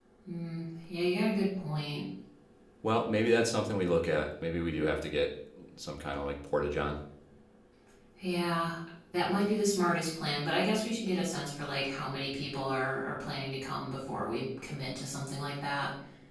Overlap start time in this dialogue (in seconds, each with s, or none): none